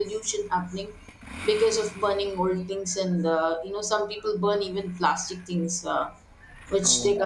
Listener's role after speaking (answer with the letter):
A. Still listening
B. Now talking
A